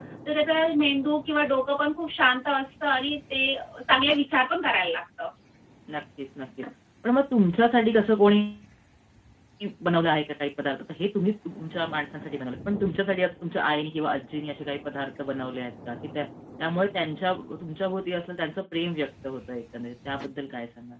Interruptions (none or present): none